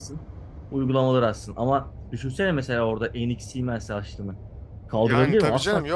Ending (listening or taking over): taking over